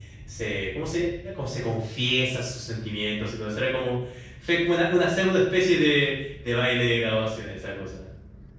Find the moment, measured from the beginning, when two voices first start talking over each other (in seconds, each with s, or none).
none